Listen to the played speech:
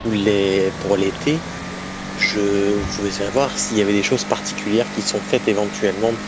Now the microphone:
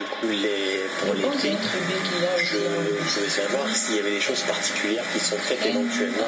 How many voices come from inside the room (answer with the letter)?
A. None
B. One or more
B